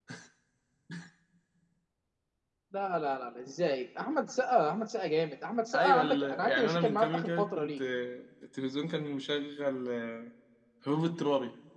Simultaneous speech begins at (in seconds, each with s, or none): 5.7 s